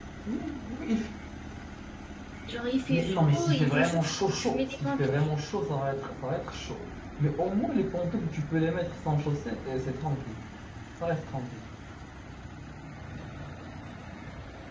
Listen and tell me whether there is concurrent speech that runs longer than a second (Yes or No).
Yes